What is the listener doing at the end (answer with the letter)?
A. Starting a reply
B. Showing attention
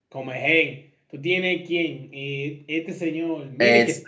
A